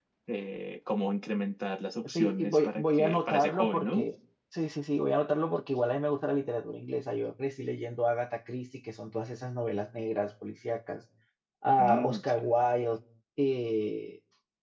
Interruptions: present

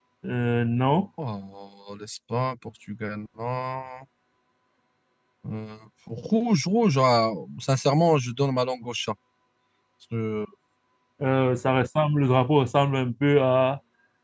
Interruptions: none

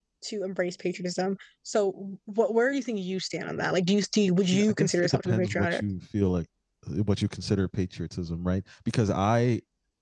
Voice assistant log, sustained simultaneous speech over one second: present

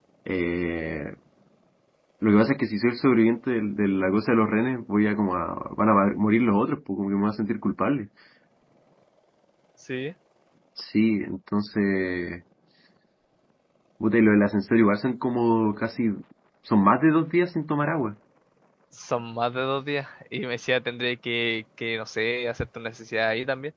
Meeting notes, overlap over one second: none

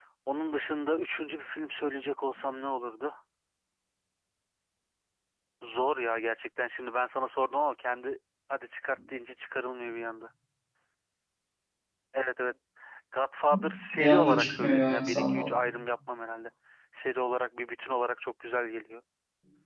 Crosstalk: present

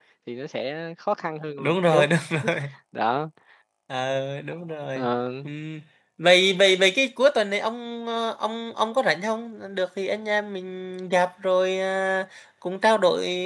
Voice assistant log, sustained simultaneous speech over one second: none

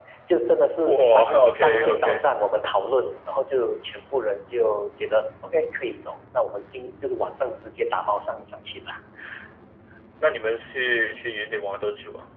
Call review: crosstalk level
present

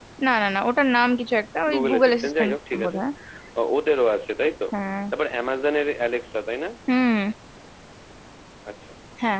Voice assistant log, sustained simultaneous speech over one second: present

